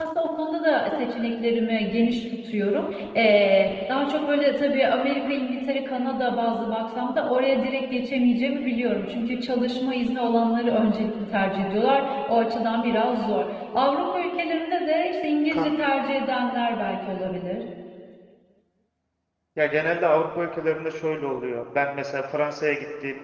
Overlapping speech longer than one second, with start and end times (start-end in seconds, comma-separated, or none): none